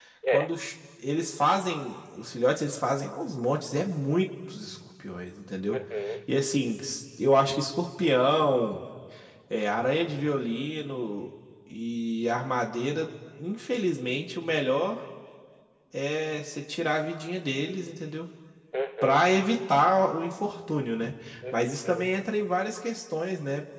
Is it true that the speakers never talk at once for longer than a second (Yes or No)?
Yes